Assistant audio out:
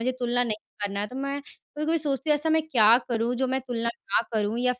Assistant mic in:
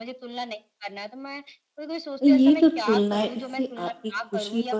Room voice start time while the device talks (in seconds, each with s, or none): 2.2 s